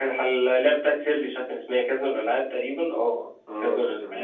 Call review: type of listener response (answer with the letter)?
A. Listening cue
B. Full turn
B